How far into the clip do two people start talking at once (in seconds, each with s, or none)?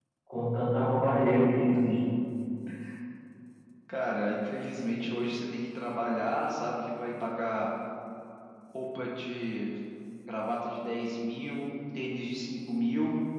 none